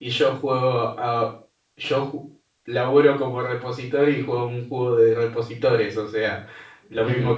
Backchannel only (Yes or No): Yes